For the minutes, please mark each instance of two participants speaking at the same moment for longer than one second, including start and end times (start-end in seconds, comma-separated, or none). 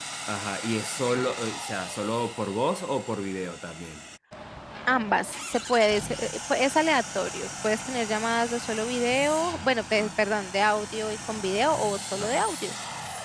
none